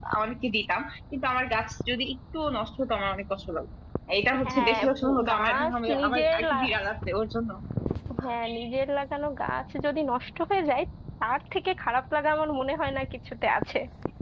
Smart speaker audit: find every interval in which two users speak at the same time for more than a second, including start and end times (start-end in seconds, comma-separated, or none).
4.4-6.8